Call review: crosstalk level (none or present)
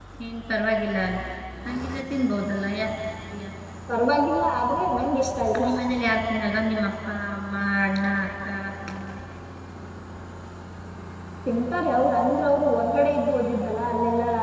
none